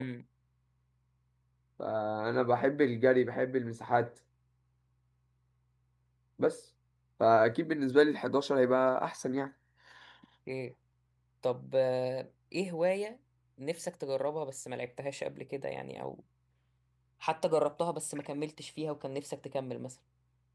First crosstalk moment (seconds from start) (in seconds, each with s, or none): none